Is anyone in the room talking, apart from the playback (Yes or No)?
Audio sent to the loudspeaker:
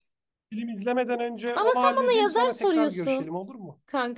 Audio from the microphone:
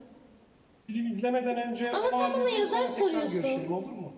No